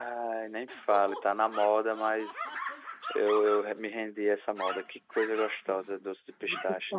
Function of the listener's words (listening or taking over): taking over